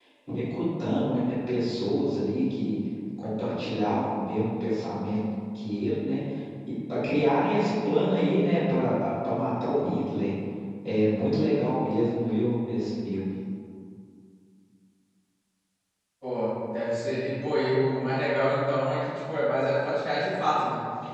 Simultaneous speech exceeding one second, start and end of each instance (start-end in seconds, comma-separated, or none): none